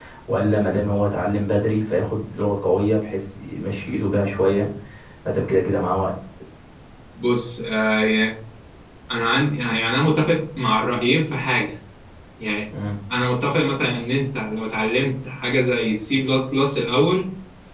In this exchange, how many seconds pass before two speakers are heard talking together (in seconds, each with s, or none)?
none